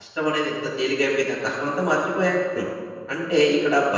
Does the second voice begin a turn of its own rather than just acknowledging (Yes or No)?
No